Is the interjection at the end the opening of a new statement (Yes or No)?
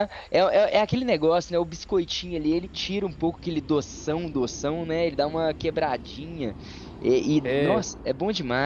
No